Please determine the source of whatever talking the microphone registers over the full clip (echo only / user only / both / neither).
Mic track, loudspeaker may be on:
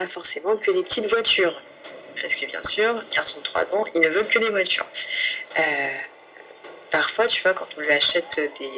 echo only